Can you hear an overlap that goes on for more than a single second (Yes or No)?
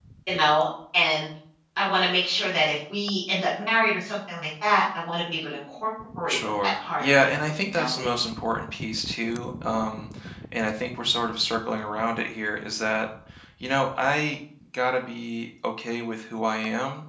Yes